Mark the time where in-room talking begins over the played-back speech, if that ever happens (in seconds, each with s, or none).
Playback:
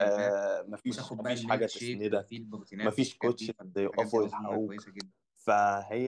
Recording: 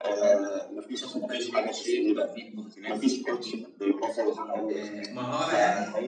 4.7 s